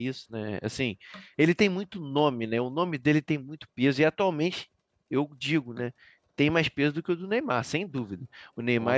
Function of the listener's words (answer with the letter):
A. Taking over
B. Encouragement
B